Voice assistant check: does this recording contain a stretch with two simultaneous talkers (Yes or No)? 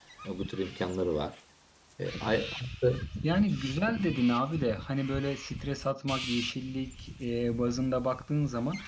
No